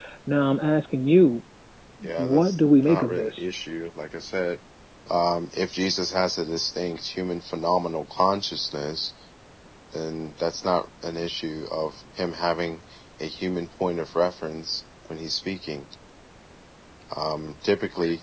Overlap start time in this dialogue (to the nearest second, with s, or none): 2 s